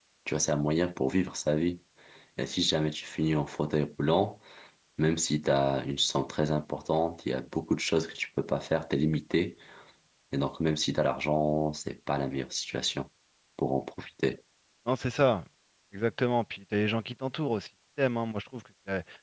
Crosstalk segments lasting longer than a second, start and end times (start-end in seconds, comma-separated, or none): none